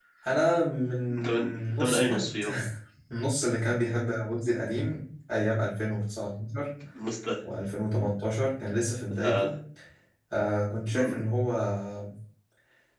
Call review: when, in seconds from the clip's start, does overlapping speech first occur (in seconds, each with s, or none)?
1.2 s